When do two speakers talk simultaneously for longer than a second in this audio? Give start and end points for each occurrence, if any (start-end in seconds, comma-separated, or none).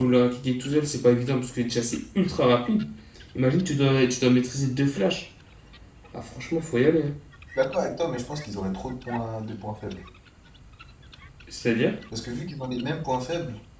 none